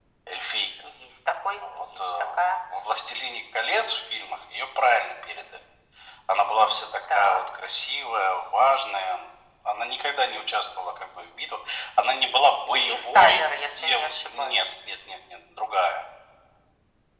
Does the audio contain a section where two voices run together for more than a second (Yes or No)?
Yes